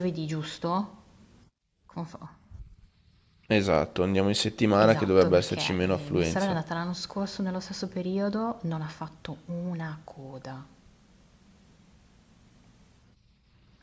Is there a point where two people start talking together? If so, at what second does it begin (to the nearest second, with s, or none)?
5 s